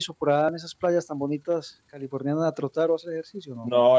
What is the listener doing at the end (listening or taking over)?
taking over